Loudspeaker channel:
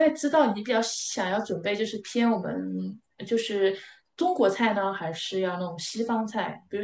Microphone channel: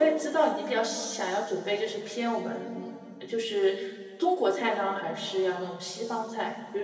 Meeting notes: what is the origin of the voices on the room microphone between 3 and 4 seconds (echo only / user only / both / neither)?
echo only